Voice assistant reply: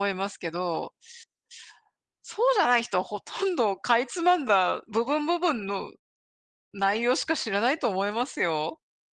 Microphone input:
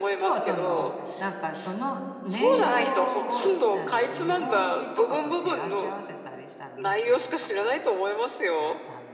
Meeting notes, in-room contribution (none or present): present